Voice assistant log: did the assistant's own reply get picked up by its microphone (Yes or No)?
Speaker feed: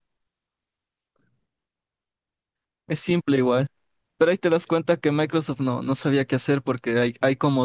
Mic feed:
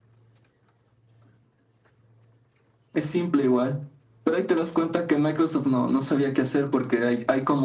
Yes